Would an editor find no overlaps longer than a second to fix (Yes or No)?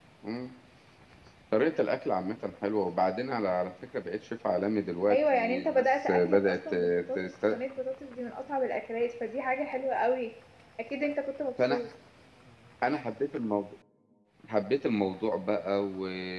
No